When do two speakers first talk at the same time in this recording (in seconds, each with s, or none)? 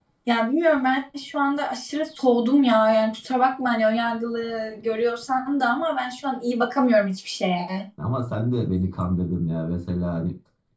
none